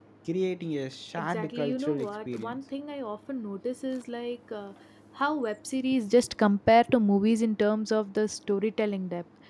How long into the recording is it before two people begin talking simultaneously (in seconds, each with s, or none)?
1.1 s